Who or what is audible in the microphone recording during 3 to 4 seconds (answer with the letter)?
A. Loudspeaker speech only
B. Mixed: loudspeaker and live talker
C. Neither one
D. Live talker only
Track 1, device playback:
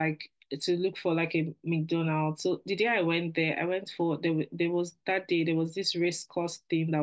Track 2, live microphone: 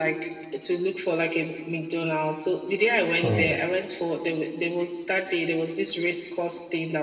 B